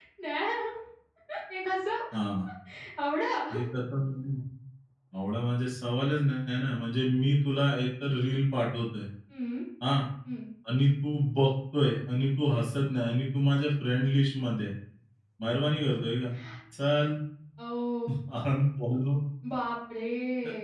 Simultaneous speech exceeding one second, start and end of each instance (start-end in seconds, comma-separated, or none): none